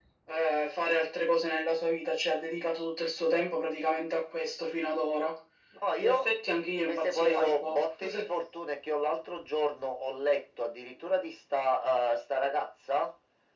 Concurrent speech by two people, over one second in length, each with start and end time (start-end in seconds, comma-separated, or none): 6.9-8.3